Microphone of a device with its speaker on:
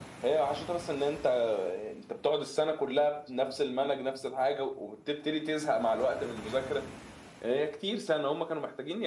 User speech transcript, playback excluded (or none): none